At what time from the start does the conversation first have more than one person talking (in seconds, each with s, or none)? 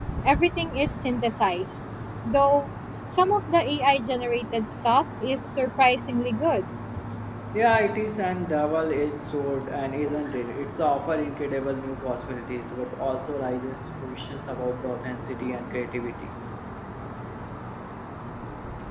none